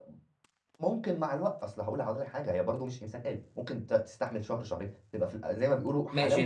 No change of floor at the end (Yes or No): No